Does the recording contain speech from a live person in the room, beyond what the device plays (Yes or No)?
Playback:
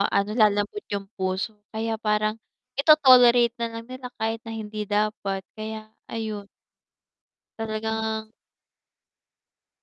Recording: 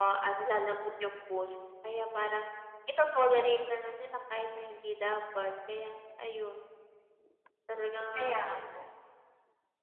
Yes